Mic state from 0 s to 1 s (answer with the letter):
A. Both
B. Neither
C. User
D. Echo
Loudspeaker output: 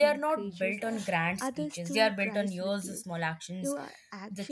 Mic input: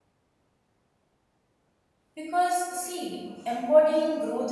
B